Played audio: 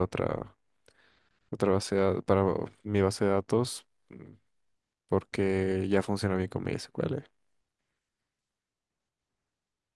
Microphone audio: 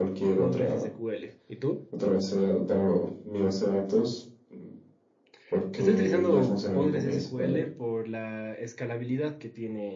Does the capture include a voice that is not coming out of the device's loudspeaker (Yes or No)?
Yes